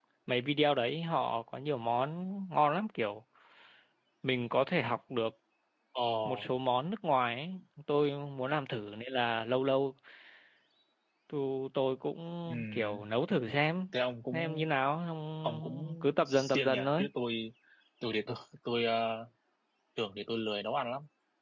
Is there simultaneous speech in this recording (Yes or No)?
Yes